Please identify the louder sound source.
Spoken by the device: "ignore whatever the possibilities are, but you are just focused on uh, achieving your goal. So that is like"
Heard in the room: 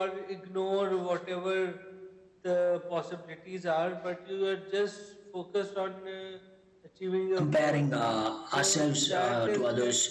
user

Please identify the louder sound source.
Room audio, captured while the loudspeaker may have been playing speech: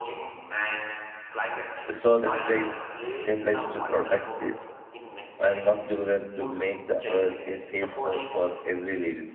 user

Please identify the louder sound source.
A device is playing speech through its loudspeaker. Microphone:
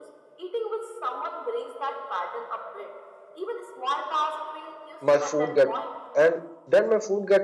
user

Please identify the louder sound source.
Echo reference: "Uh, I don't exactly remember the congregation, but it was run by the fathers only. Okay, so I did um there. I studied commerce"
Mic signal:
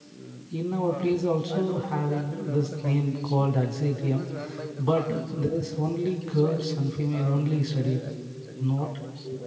user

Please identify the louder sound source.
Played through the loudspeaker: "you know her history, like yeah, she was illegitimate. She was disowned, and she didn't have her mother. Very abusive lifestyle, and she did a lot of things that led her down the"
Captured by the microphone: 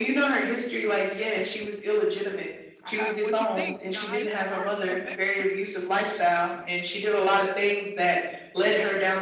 echo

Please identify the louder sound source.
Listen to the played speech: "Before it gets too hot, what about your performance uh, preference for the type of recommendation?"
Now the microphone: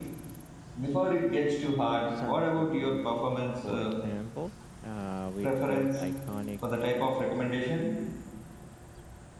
echo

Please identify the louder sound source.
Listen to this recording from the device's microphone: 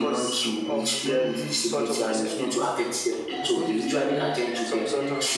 echo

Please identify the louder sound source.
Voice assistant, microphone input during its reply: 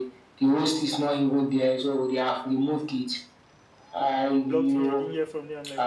echo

